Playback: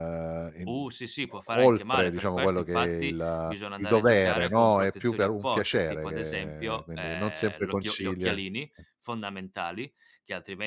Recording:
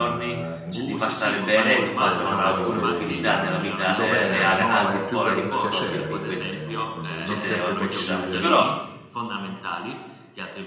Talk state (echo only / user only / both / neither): both